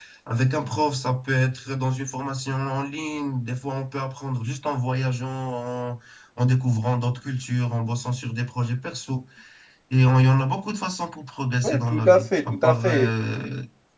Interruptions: present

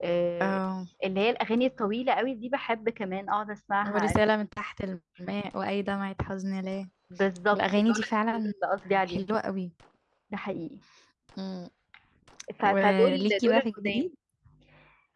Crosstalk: present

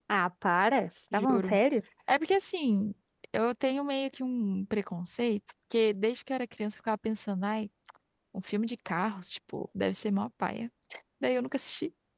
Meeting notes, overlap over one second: none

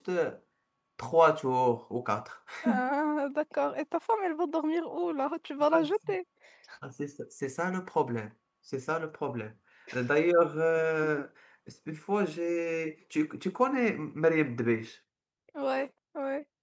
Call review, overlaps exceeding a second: none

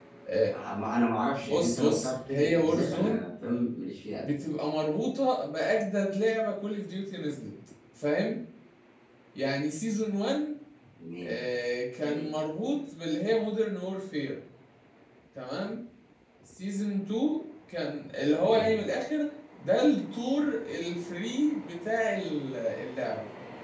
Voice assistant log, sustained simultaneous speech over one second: present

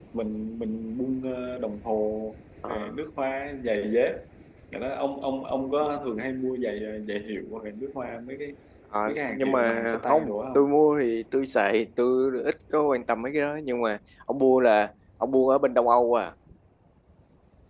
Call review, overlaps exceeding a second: present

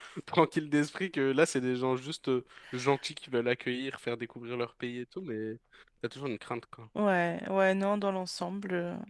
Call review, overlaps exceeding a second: none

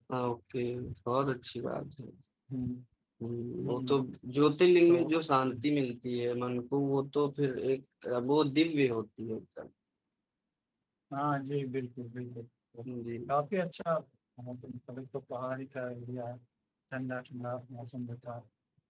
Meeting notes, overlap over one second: none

